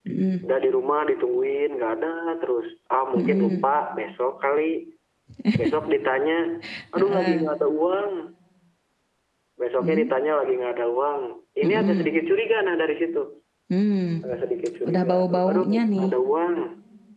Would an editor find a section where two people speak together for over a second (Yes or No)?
Yes